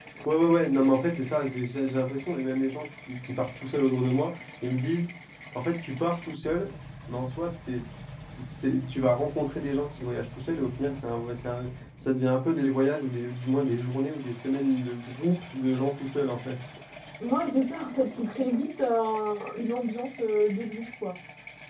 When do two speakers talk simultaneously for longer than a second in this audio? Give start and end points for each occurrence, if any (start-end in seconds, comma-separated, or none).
none